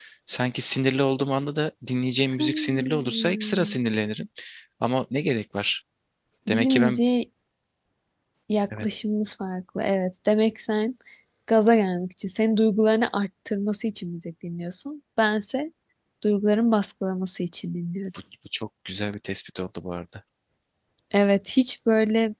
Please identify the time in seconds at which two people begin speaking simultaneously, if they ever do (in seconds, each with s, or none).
2.4 s